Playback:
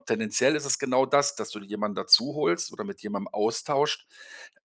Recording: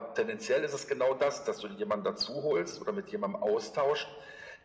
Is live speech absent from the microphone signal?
Yes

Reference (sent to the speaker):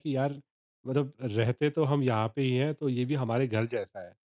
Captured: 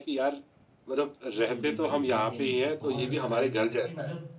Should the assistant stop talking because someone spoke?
Yes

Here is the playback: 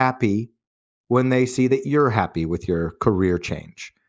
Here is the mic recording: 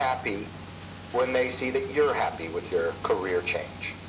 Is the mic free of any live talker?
Yes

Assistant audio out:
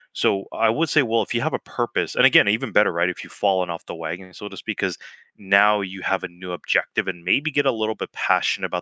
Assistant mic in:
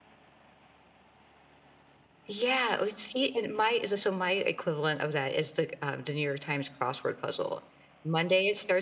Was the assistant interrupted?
Yes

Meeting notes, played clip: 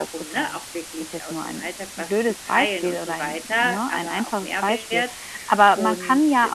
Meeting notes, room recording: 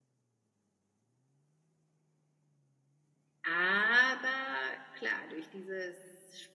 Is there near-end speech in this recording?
Yes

